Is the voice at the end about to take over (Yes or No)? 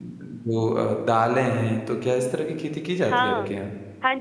Yes